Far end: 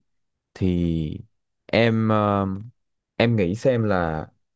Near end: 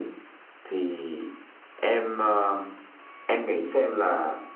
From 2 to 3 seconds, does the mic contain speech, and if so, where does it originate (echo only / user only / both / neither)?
echo only